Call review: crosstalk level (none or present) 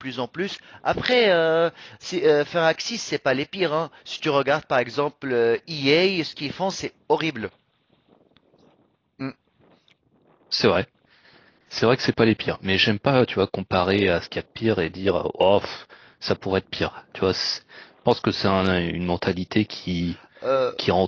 none